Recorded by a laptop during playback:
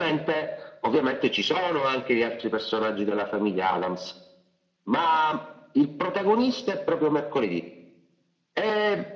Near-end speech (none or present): none